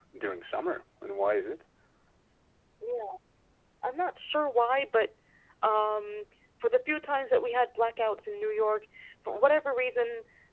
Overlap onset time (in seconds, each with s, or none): none